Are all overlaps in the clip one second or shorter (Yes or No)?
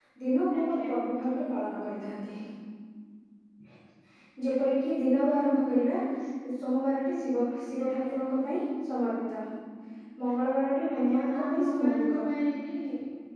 No